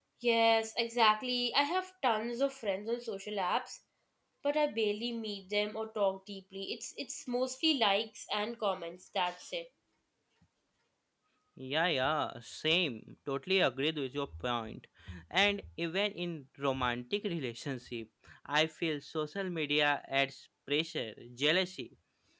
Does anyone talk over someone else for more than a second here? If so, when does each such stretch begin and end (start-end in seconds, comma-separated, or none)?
none